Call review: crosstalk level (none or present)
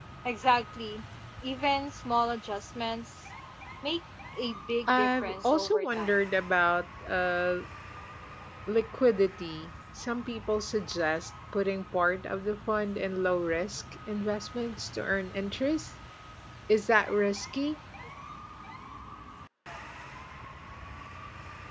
present